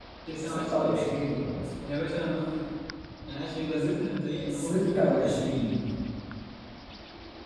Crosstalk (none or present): present